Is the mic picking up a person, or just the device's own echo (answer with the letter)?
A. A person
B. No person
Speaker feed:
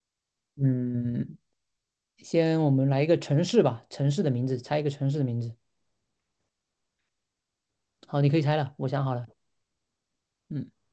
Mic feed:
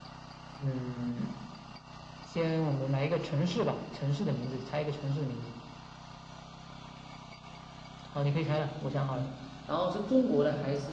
A